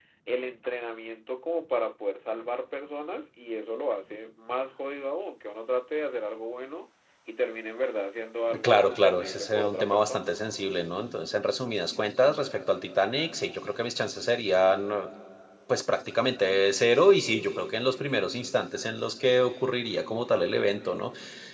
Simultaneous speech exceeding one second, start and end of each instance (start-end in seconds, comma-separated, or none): 8.6-10.4